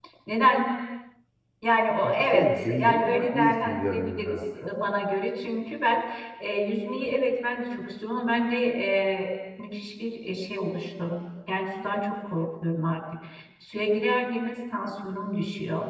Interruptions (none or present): present